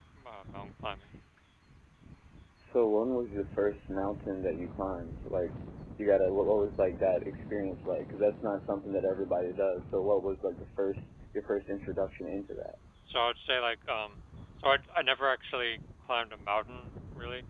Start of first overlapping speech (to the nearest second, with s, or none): none